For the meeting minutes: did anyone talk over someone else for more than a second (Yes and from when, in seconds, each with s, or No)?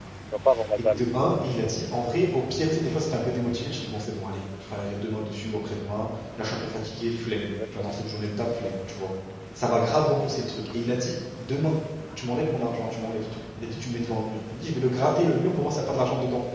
No